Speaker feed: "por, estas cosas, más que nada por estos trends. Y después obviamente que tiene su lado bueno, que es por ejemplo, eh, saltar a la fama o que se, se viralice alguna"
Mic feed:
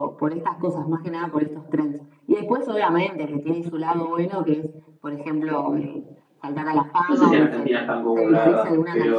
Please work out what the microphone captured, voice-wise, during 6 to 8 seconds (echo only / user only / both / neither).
both